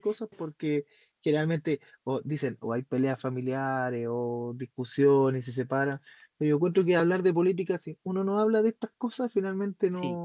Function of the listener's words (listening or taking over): listening